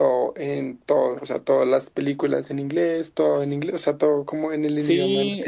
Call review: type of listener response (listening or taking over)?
taking over